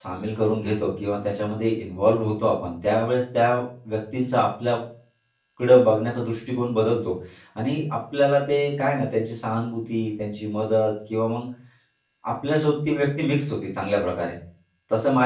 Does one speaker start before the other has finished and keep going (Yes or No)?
No